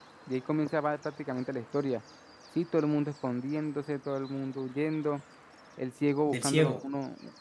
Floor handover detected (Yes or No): No